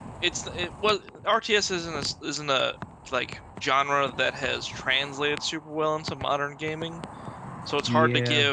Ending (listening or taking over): listening